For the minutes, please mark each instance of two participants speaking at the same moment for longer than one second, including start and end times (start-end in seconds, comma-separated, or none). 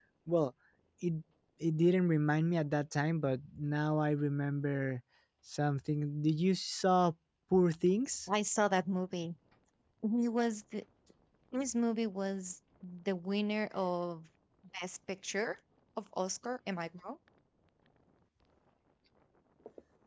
none